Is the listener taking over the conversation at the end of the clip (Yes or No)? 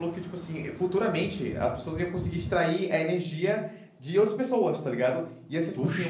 No